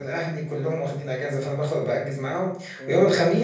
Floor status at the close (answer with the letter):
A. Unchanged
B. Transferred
A